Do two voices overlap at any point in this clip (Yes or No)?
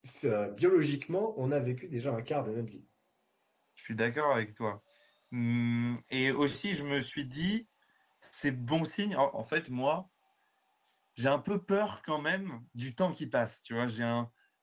No